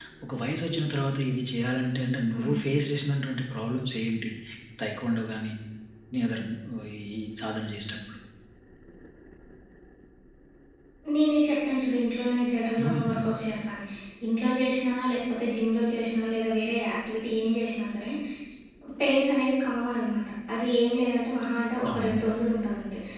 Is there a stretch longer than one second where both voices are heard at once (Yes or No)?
No